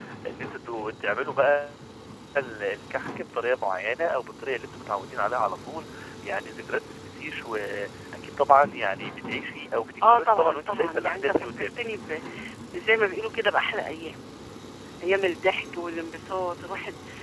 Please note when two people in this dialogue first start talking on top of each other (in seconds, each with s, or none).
10.0 s